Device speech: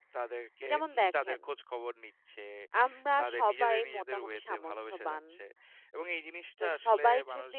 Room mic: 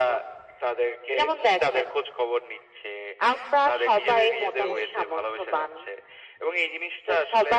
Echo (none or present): present